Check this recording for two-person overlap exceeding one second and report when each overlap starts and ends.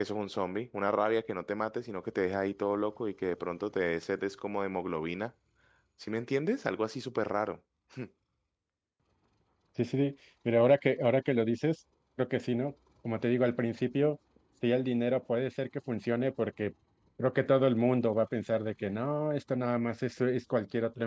none

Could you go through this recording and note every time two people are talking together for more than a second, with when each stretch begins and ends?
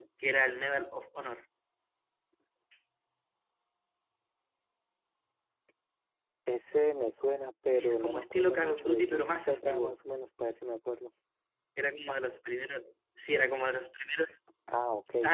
7.7-10.0

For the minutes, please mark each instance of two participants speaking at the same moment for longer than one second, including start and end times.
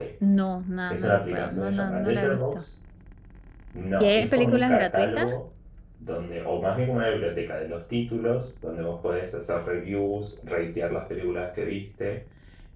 0.9-2.6, 4.0-5.3

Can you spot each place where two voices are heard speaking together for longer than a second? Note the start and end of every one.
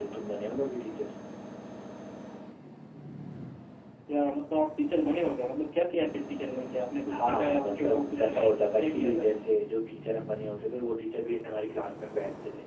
7.1-9.2

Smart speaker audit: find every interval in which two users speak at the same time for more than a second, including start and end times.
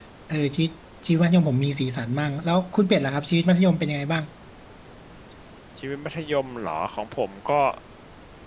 none

